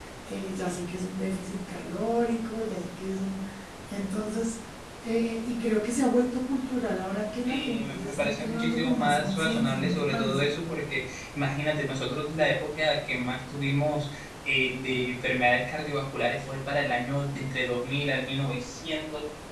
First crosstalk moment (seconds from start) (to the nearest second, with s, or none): 7 s